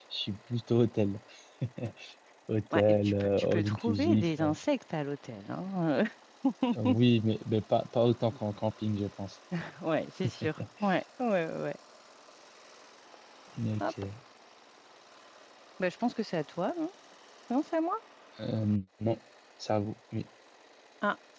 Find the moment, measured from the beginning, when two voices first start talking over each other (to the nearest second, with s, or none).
3 s